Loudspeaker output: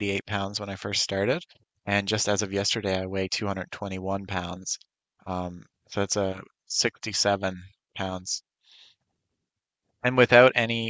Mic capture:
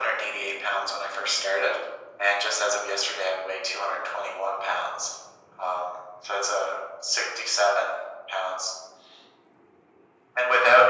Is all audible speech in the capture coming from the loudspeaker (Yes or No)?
Yes